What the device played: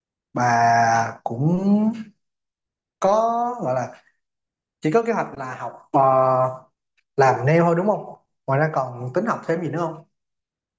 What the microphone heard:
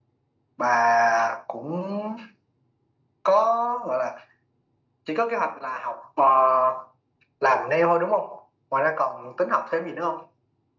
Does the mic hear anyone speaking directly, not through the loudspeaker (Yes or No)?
No